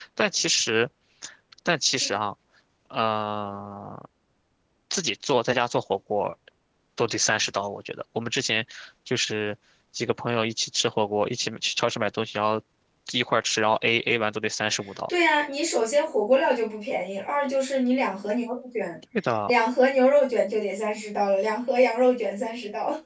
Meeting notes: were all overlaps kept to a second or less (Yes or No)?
Yes